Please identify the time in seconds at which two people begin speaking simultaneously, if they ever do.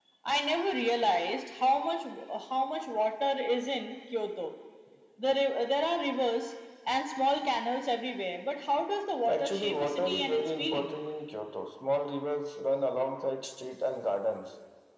9.2 s

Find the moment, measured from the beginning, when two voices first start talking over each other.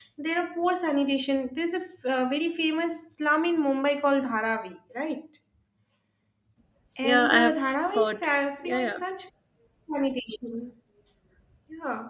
7.0 s

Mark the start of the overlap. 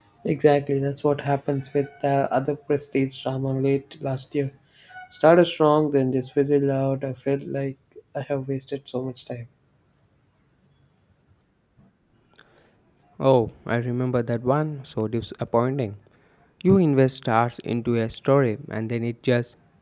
none

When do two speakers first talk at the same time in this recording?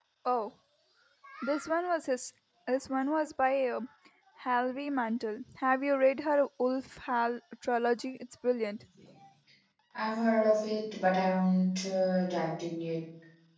none

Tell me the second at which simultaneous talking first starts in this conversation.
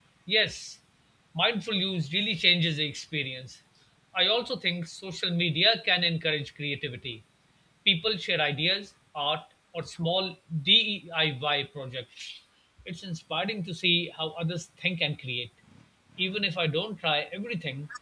none

